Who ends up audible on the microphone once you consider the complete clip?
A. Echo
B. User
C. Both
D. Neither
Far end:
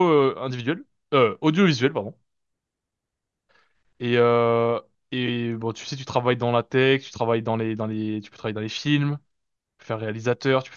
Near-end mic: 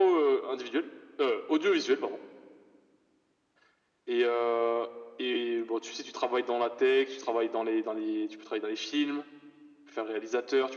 A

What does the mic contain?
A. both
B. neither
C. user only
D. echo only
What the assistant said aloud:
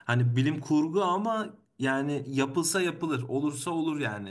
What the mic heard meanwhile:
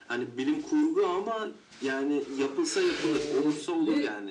A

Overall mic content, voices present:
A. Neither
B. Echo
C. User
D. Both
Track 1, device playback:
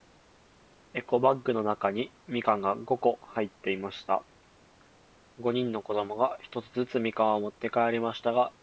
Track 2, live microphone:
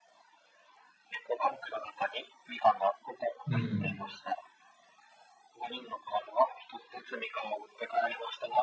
D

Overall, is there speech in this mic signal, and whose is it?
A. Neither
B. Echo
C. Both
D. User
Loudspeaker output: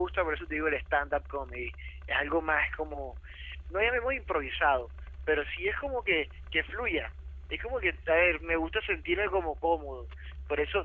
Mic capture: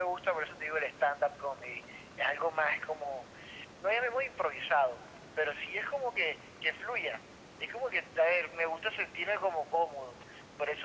B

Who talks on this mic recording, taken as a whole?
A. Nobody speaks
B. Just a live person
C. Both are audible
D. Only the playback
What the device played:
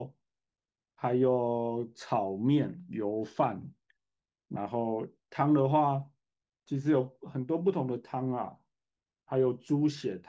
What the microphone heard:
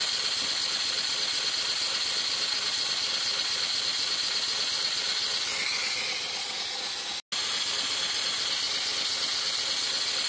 A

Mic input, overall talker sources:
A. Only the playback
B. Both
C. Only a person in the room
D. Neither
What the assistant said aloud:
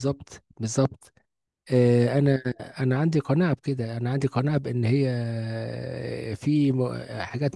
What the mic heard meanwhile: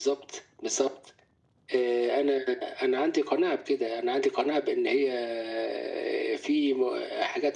A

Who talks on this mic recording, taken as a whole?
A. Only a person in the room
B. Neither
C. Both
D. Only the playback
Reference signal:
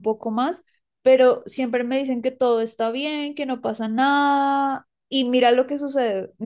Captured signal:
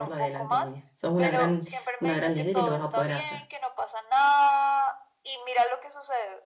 C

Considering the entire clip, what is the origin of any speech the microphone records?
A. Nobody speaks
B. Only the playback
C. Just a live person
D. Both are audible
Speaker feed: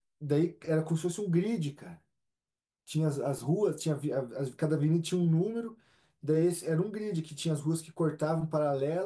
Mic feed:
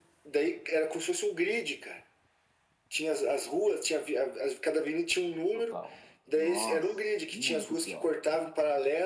D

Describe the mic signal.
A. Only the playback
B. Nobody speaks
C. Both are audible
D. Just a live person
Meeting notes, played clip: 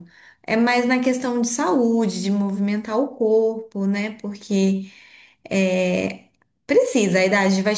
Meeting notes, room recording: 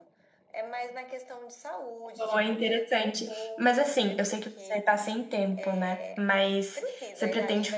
C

